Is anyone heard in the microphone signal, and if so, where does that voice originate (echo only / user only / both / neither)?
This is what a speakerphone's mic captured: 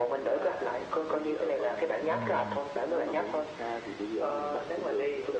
both